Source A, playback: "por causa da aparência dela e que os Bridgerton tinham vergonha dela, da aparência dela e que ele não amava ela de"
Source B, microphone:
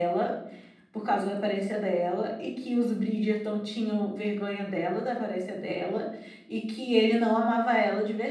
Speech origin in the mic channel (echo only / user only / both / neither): echo only